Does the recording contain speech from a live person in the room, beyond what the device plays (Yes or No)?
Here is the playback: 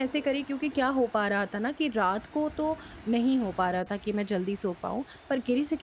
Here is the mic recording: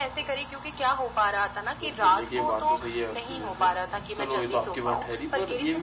Yes